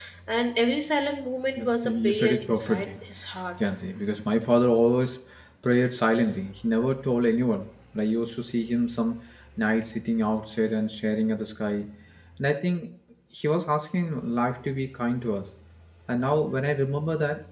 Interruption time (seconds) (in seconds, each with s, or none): 1.6 s